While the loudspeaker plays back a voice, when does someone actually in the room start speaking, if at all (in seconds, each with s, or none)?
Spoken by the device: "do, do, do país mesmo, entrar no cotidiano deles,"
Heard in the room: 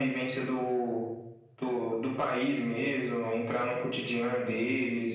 none